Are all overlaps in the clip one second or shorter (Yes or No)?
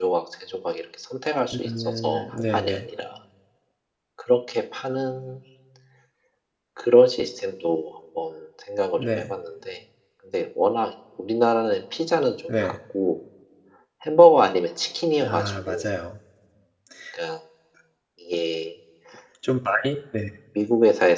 No